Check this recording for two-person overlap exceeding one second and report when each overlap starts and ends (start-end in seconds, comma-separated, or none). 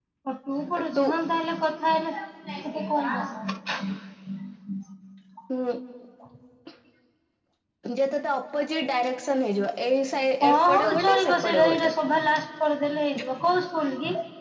10.4-11.9